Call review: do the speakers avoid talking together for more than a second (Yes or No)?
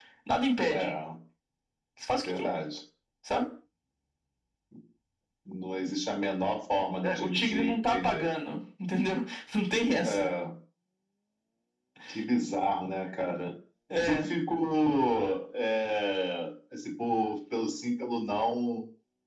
No